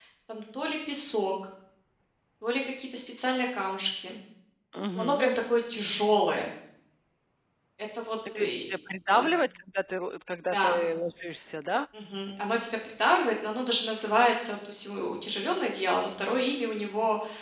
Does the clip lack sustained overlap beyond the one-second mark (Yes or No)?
Yes